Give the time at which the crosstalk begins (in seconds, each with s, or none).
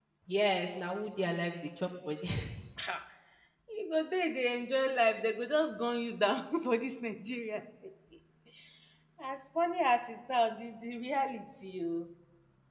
none